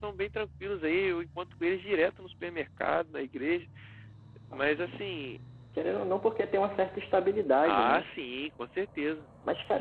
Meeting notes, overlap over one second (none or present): none